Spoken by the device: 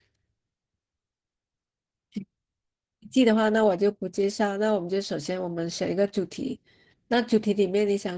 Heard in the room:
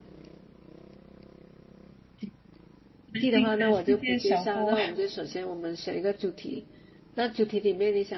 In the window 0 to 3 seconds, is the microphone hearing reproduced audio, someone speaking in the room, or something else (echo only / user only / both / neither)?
neither